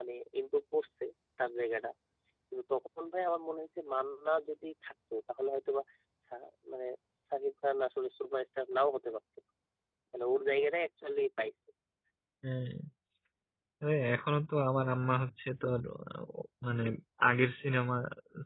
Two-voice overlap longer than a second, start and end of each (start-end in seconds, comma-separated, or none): none